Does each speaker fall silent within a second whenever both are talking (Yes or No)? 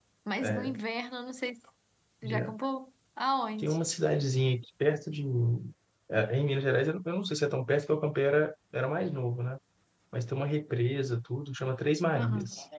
Yes